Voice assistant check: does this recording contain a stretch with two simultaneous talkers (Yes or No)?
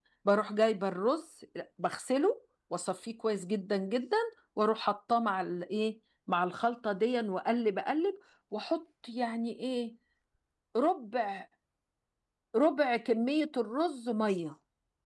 No